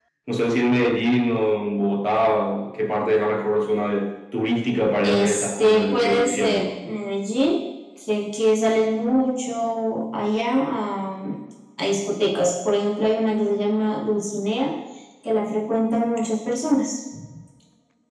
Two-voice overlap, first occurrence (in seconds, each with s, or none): 5.0 s